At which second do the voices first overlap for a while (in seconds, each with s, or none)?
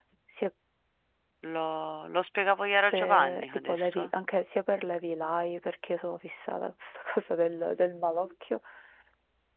2.9 s